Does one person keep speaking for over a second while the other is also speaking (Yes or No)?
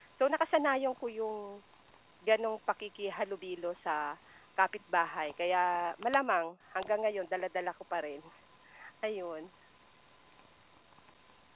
No